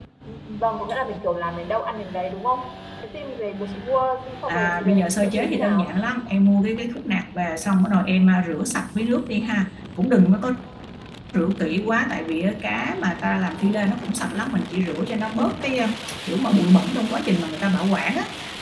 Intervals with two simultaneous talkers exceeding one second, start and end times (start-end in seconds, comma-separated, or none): 4.5-6.0